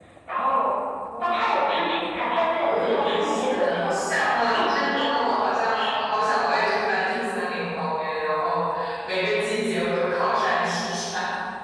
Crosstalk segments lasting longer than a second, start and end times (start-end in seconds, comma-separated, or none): 2.6-4.0